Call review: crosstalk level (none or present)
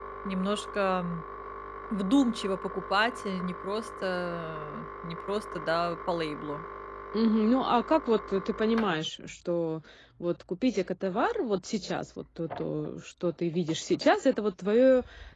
none